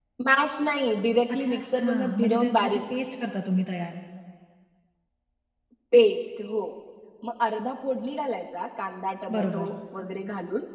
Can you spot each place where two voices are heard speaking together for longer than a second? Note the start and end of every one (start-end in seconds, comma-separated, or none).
1.4-2.8